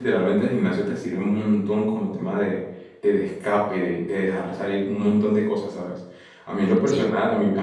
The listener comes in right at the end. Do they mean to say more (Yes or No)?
No